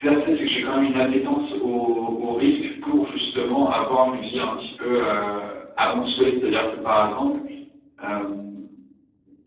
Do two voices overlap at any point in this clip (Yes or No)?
No